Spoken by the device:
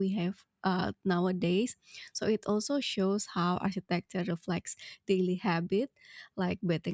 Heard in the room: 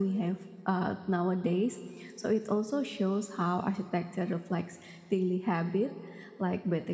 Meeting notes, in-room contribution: none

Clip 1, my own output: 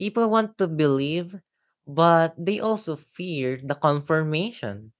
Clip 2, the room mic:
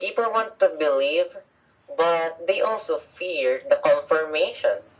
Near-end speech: none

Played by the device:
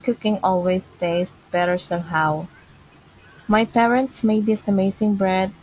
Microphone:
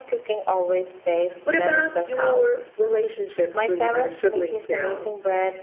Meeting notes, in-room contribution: present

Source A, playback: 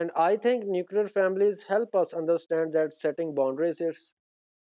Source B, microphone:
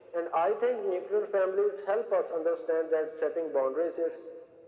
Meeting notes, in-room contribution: none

